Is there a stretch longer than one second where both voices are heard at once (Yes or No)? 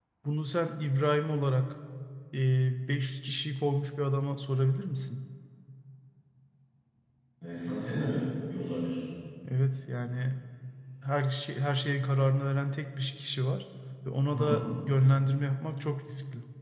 No